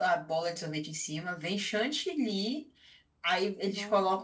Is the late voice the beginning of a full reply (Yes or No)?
No